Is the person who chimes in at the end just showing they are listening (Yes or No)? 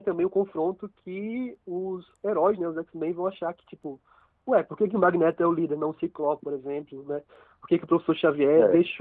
Yes